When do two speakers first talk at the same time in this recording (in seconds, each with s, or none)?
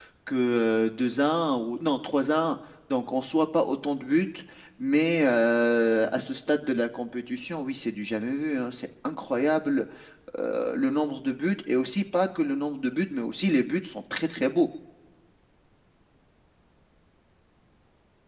none